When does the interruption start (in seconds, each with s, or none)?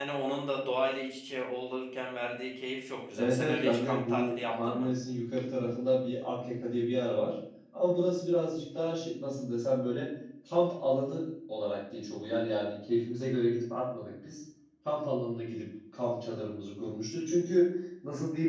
3.1 s